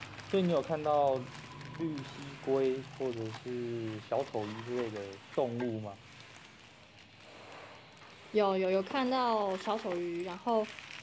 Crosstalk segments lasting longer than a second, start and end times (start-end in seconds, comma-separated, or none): none